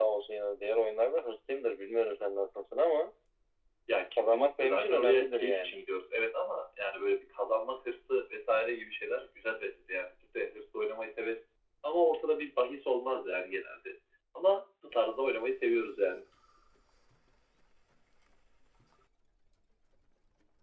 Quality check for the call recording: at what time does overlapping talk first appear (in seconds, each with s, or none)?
4.2 s